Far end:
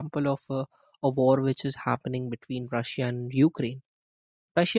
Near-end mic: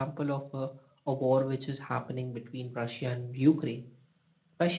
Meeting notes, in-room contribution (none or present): none